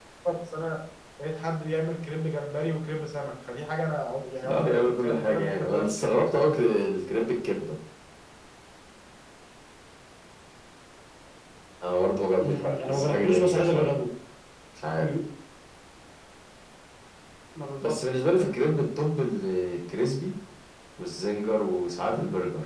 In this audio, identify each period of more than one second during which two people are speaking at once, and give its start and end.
4.4-6.1, 12.3-14.0

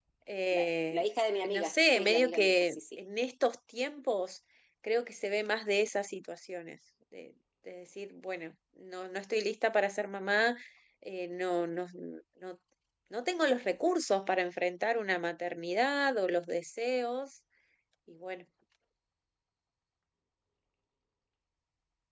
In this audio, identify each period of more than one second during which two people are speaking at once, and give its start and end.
1.5-2.8

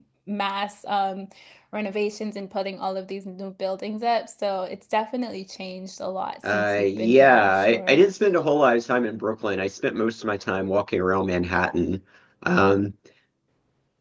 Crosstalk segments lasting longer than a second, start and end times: 6.5-8.0

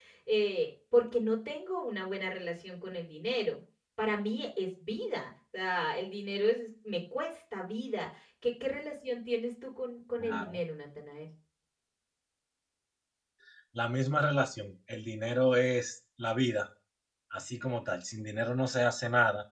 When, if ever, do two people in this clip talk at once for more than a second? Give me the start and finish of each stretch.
none

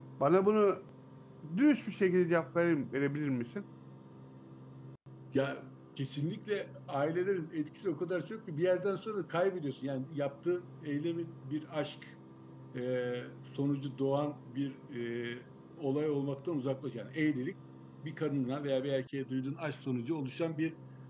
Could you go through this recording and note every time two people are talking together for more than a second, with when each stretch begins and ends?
none

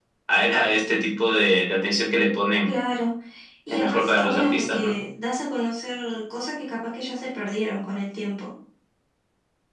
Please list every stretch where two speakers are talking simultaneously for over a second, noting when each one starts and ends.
3.7-4.9

